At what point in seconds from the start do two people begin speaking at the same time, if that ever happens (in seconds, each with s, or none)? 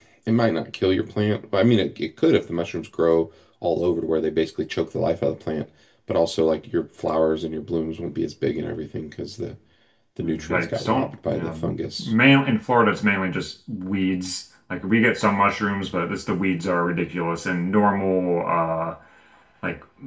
10.2 s